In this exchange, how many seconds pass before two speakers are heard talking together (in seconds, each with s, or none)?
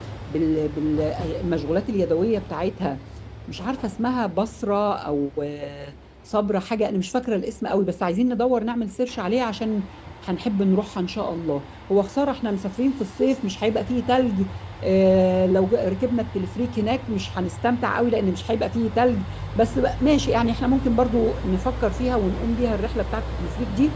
none